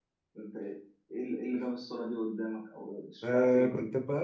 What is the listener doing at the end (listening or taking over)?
taking over